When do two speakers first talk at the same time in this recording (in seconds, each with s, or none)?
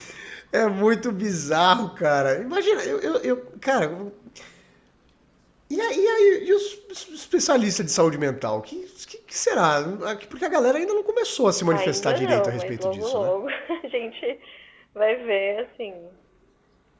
11.7 s